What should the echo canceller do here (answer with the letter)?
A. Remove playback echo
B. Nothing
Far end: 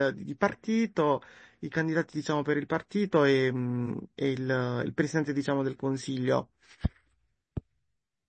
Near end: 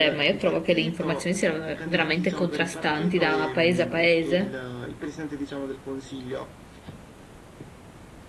A